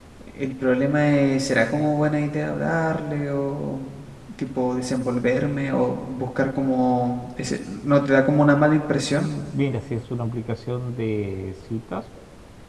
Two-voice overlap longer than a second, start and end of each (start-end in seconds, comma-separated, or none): none